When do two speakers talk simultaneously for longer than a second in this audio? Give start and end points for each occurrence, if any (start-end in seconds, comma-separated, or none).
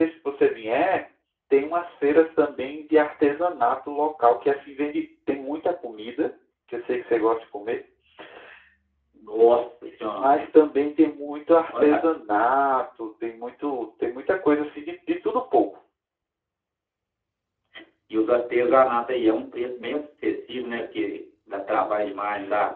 none